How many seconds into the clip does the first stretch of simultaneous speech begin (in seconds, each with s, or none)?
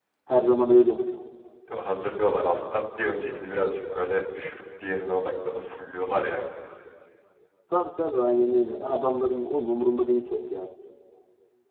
none